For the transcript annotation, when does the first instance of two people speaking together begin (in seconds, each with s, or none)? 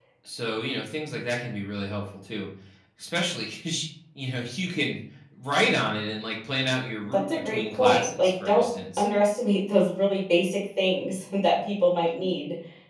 7.1 s